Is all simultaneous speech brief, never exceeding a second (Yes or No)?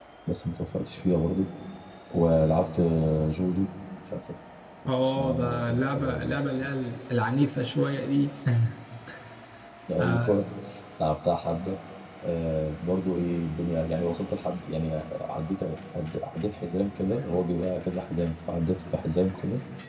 No